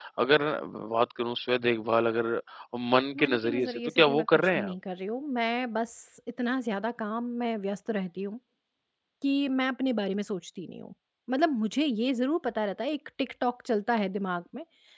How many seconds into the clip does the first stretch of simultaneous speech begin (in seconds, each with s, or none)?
3.2 s